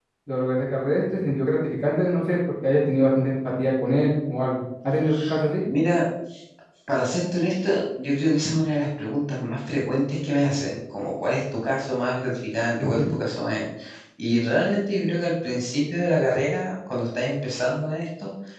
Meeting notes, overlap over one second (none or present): none